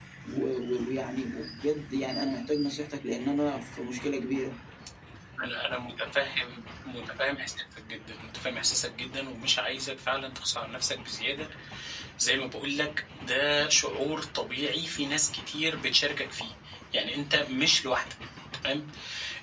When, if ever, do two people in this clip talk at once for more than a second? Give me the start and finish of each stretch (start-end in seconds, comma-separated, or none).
none